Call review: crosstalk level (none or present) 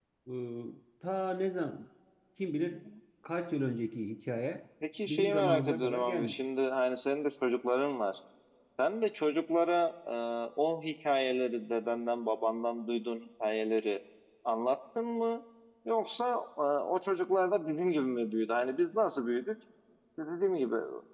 present